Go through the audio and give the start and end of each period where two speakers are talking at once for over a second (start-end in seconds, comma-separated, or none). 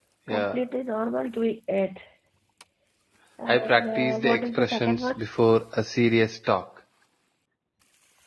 3.5-5.2